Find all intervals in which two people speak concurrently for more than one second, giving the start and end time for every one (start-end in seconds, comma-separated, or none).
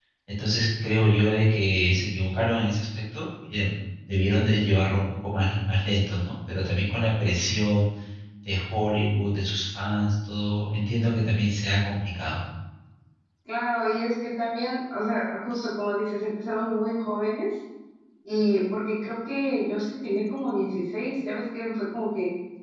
none